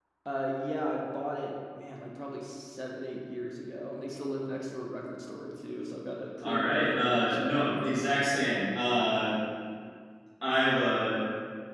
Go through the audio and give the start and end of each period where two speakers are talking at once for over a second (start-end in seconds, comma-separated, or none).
6.4-7.7